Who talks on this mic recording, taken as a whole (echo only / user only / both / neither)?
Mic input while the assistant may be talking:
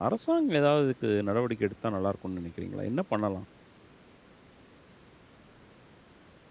user only